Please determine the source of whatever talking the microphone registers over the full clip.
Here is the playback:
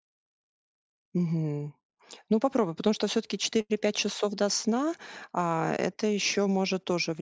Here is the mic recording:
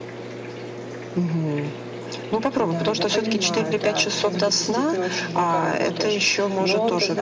both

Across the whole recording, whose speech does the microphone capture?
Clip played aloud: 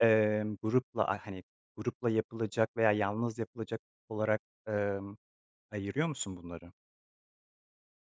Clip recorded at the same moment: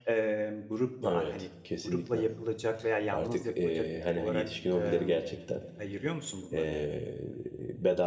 both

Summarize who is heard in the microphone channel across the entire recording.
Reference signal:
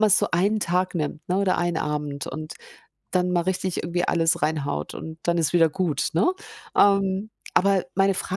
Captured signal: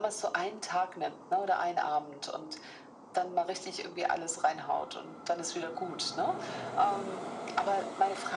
echo only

